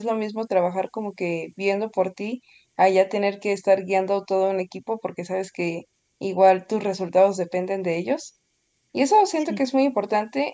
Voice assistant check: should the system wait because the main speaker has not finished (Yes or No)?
Yes